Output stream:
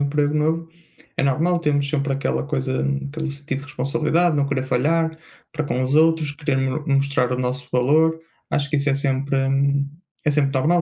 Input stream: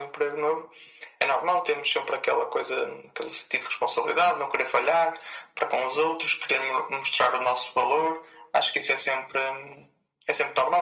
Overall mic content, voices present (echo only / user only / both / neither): echo only